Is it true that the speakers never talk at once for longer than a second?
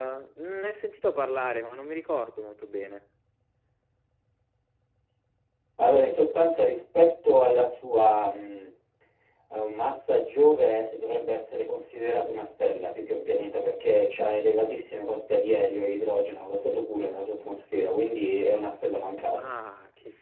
Yes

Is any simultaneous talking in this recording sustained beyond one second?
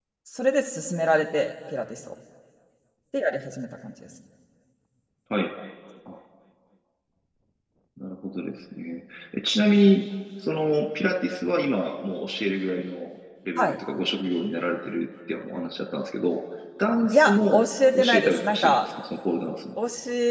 Yes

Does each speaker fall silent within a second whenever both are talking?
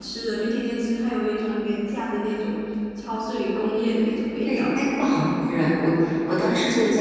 Yes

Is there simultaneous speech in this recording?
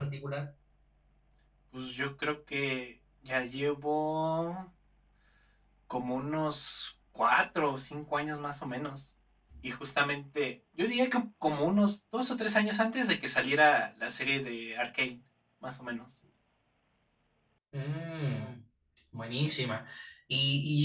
No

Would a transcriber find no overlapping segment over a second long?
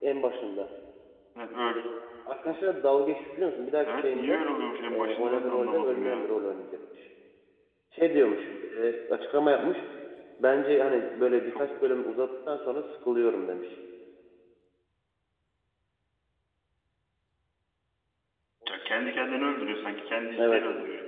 No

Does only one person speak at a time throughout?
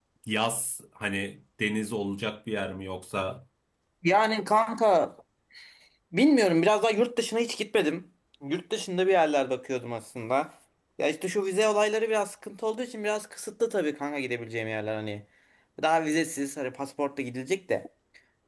Yes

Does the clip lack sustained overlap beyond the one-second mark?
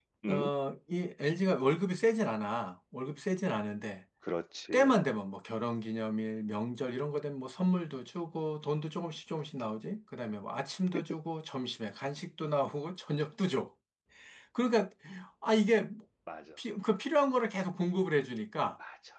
Yes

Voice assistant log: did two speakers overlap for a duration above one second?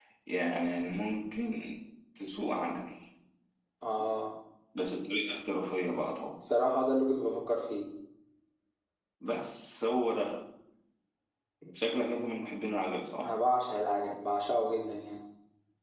No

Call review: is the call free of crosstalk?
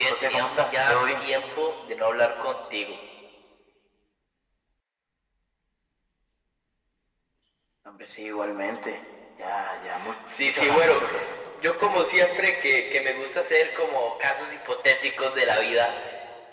No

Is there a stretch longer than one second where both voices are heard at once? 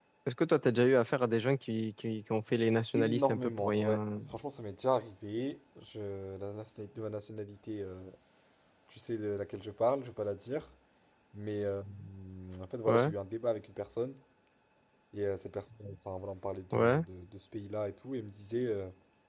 Yes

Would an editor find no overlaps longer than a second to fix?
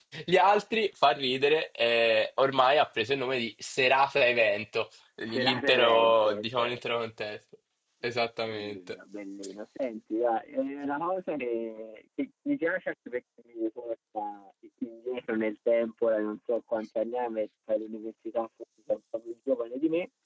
No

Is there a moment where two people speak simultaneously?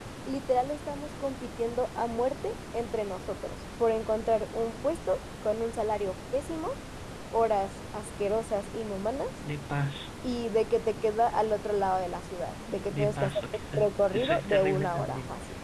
Yes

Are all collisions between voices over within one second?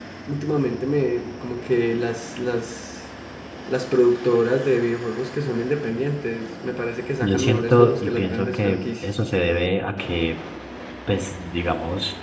No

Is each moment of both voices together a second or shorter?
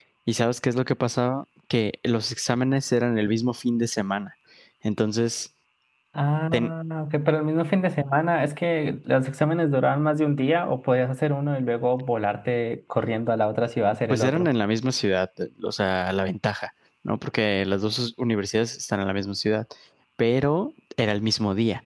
Yes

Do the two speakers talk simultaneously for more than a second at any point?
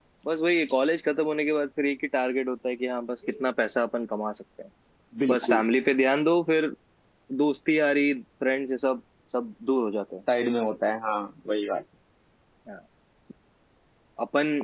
No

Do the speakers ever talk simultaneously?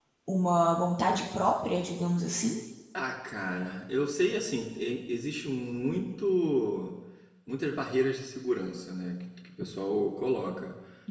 No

